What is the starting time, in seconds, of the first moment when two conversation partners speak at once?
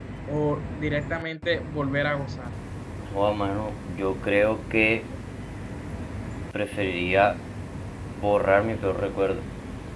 none

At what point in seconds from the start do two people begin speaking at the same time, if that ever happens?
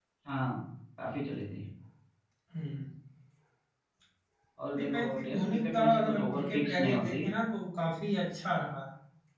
4.8 s

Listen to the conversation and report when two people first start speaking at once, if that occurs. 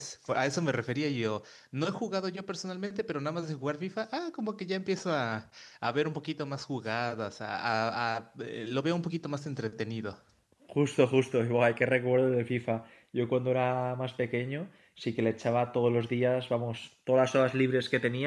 none

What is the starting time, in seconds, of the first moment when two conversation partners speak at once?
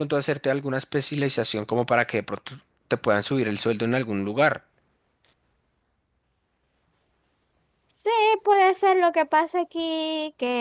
none

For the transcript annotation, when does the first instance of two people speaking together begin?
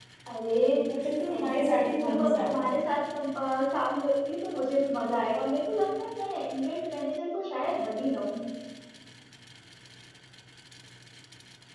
1.3 s

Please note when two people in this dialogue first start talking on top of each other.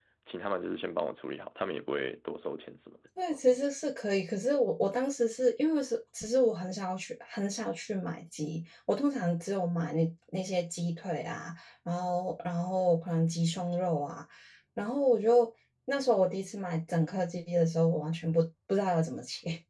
none

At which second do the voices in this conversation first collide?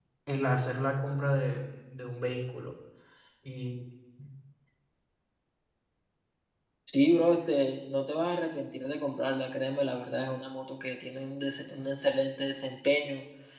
none

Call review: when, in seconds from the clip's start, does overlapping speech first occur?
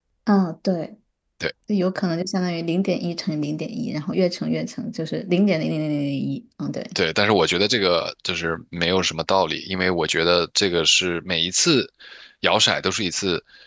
none

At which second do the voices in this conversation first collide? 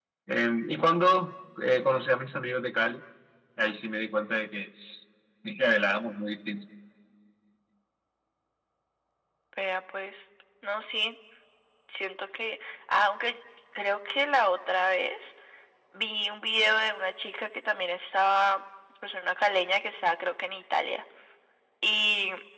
none

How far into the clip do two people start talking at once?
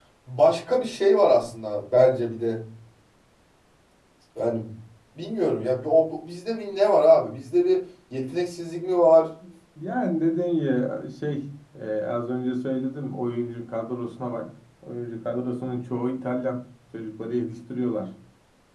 none

